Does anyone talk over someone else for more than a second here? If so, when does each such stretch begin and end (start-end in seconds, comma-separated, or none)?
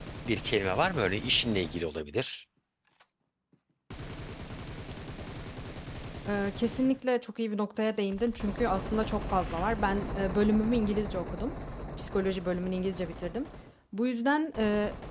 none